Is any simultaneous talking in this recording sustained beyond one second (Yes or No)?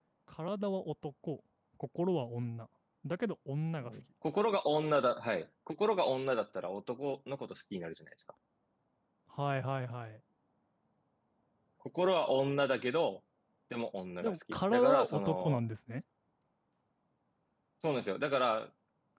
Yes